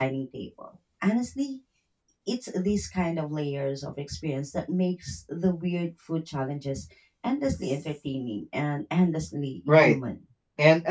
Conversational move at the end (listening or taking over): taking over